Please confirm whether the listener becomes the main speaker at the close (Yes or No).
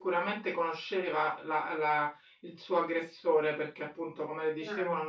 No